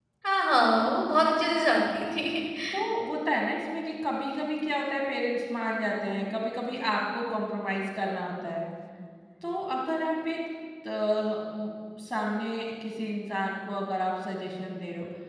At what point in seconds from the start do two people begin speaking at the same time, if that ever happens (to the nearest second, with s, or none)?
none